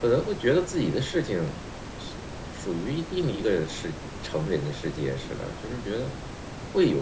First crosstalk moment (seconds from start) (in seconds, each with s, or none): none